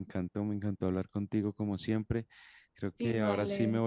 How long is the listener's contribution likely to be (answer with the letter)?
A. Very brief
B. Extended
A